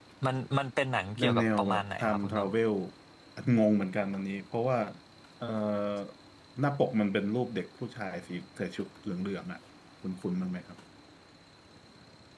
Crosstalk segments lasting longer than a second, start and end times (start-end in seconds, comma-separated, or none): 1.2-2.5